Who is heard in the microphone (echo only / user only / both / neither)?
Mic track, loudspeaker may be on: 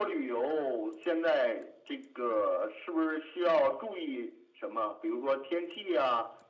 echo only